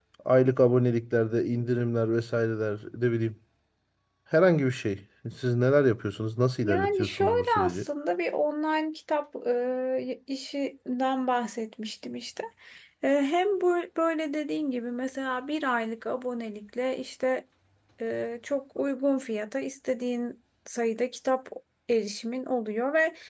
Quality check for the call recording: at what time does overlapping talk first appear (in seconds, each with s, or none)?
6.6 s